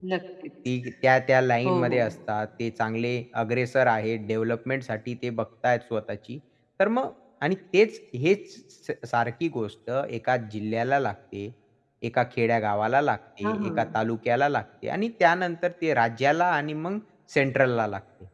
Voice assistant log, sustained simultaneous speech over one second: none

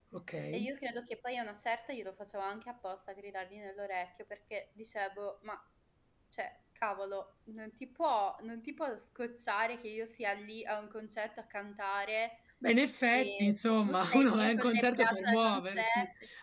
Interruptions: present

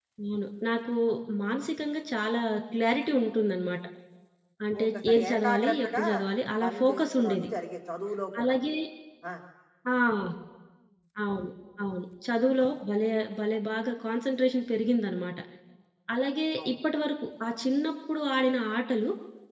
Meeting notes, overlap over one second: present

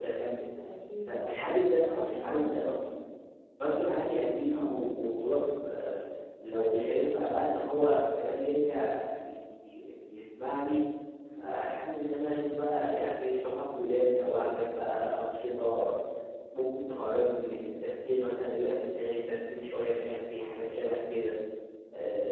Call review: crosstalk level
present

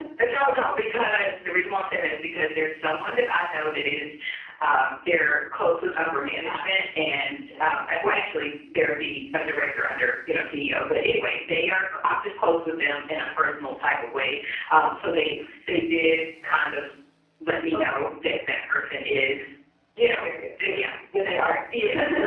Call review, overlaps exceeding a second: none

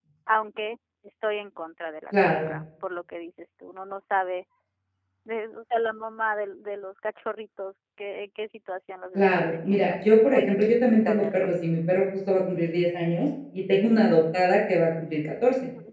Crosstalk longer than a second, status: present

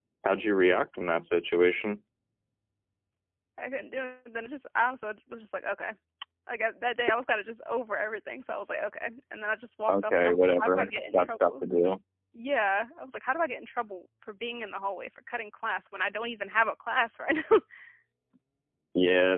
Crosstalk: present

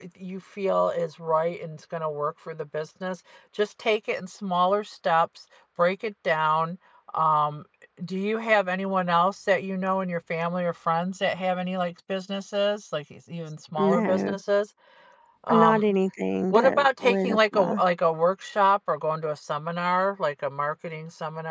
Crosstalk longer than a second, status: present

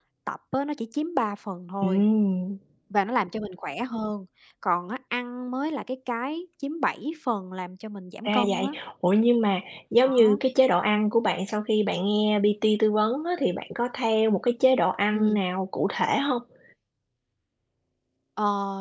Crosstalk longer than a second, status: none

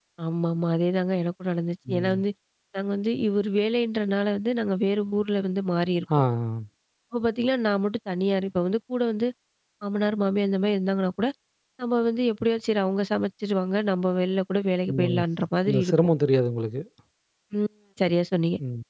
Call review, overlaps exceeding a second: none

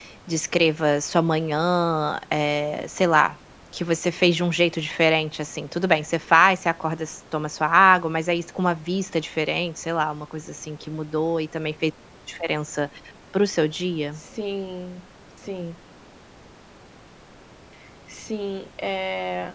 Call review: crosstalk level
none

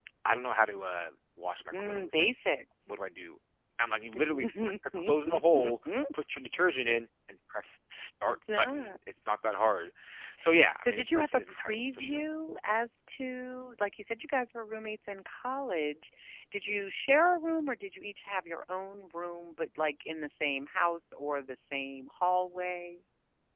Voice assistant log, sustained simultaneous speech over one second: present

